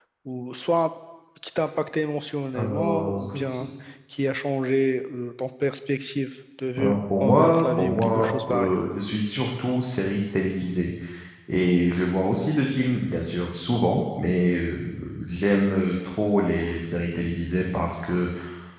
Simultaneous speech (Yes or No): Yes